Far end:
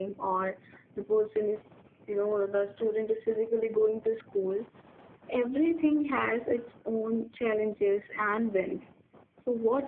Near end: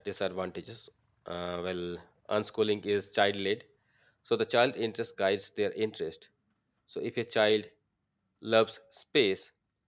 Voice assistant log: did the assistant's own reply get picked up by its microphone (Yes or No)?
No